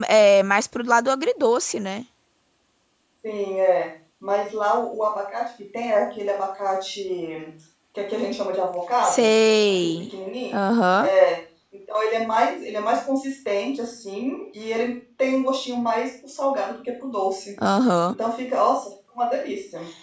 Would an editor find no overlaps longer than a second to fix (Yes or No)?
Yes